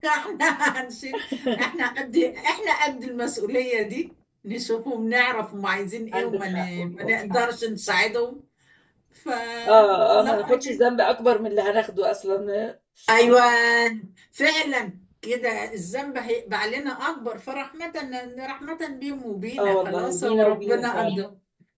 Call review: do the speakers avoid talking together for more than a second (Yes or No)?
No